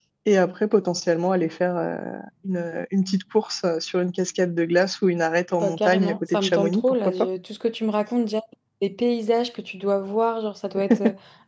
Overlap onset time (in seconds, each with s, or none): 5.6 s